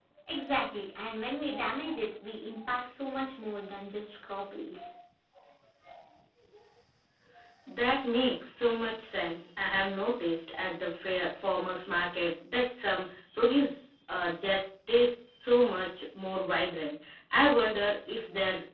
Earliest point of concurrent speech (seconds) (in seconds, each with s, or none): none